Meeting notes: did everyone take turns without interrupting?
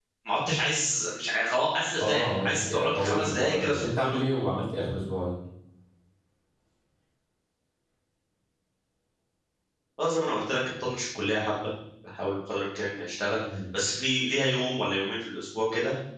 No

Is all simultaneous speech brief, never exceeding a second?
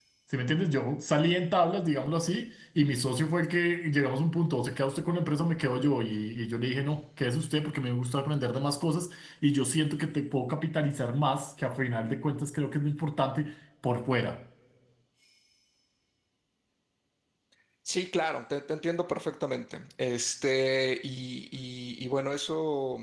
Yes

